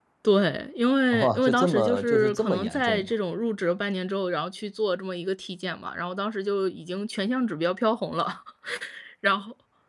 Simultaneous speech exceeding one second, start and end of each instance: 1.1-3.1

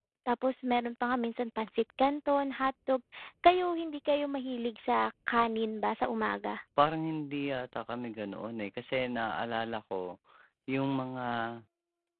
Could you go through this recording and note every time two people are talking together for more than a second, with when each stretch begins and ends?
none

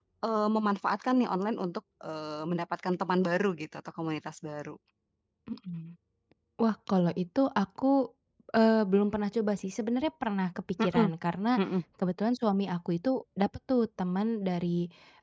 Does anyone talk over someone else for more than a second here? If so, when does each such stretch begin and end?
none

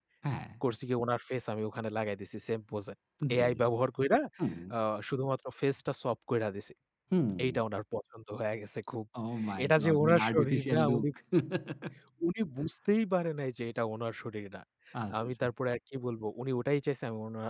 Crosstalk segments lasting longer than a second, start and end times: 9.6-11.1

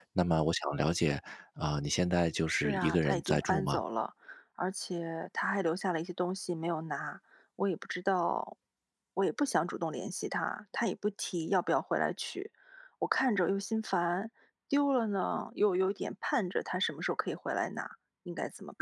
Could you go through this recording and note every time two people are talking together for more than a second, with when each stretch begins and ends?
2.5-3.8

